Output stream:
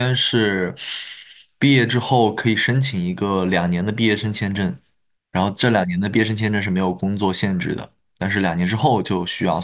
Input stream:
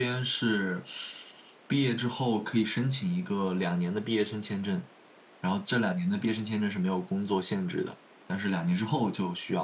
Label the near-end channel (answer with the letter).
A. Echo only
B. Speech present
A